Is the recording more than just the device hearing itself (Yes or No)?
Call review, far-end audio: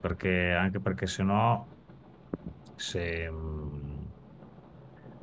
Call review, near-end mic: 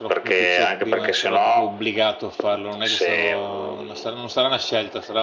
Yes